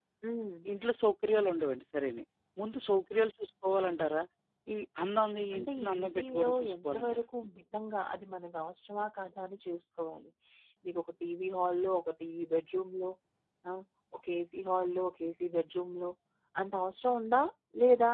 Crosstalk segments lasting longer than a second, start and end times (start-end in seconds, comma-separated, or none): 5.5-7.2